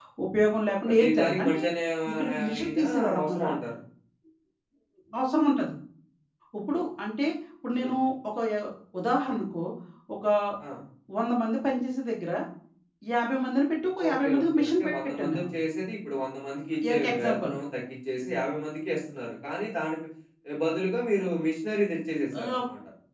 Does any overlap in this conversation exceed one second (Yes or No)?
Yes